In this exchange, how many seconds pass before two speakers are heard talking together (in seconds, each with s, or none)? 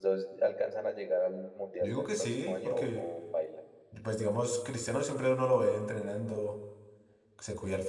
1.8 s